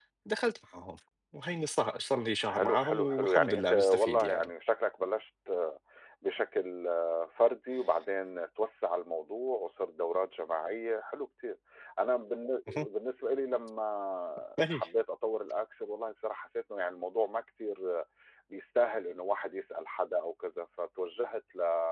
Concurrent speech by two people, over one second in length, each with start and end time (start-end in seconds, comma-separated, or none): 2.4-4.5